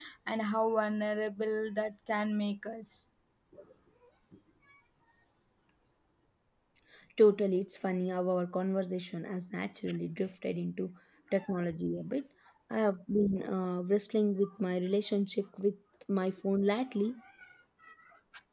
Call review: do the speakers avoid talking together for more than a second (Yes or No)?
Yes